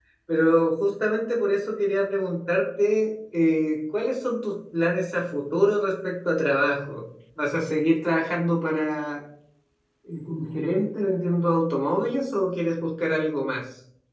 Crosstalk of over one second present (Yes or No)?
No